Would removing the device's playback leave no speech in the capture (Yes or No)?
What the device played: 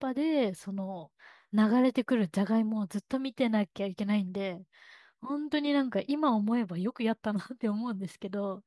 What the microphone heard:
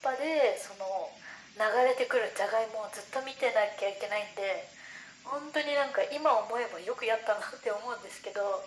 Yes